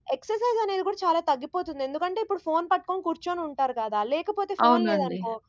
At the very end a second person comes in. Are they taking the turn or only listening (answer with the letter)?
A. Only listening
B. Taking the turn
A